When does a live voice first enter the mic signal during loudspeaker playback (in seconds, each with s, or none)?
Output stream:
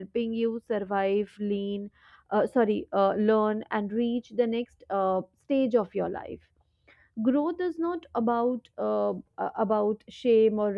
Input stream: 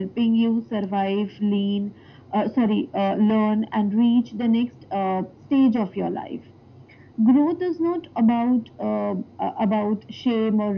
none